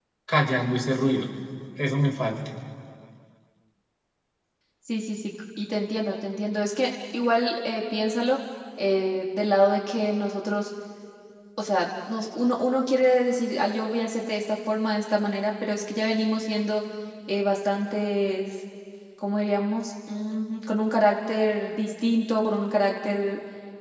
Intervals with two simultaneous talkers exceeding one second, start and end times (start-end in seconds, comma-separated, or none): none